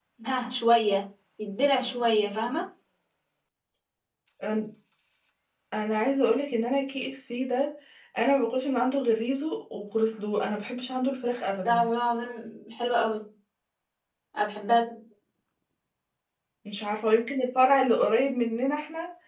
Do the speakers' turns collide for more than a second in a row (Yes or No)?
No